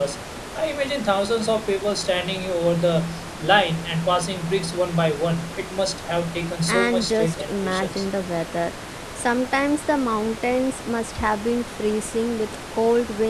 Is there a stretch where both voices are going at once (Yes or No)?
Yes